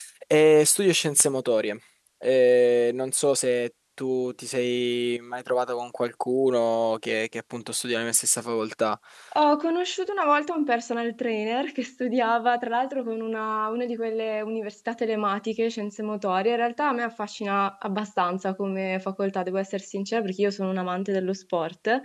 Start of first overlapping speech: none

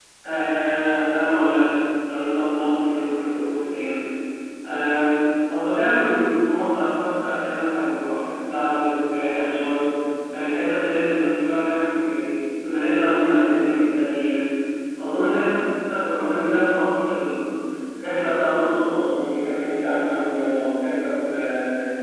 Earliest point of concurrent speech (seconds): none

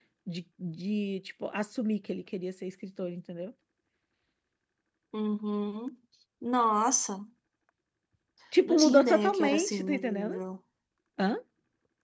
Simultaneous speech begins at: 9 s

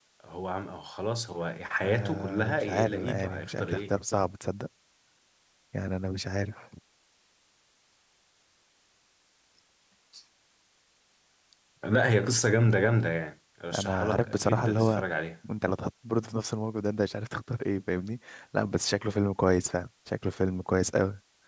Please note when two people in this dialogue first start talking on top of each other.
2 s

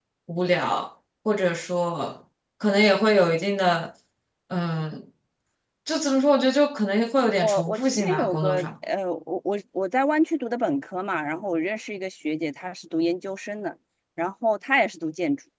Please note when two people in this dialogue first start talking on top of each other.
7 s

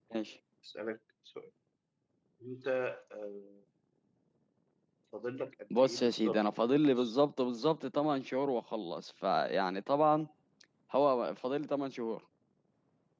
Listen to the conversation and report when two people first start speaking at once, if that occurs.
6 s

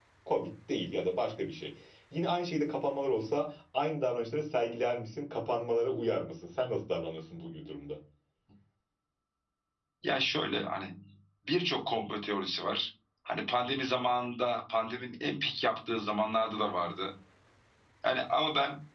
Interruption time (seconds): none

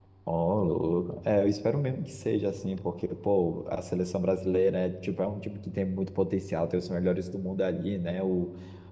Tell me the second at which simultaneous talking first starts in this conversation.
none

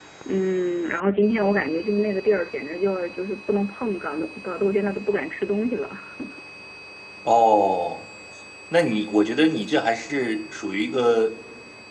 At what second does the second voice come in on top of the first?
none

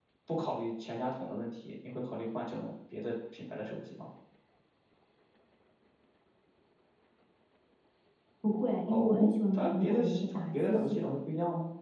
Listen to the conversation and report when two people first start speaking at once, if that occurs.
9 s

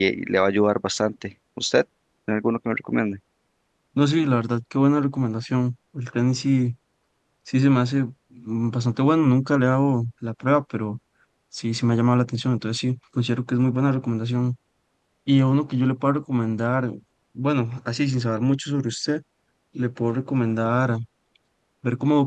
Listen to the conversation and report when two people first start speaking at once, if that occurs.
none

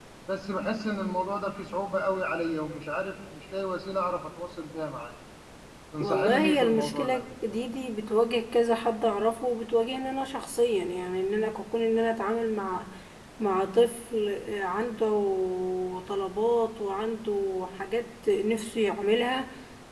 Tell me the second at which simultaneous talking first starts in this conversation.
6 s

